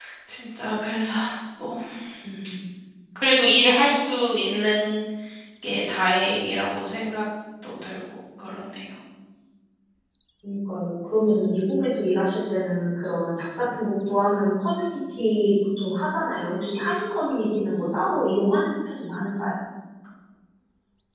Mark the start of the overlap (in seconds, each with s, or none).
none